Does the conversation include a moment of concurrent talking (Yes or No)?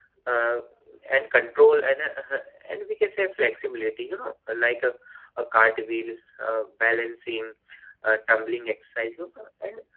No